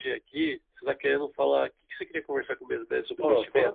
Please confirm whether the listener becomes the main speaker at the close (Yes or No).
Yes